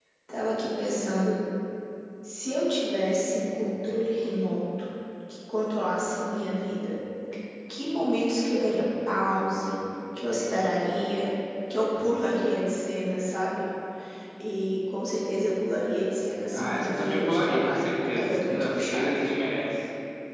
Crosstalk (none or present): present